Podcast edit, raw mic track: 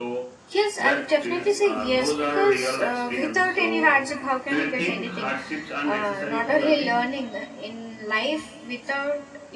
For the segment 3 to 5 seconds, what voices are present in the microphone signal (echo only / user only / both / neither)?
both